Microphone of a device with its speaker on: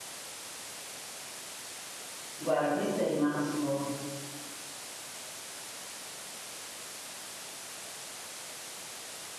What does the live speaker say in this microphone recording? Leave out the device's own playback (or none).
Guarda, questo è rimasto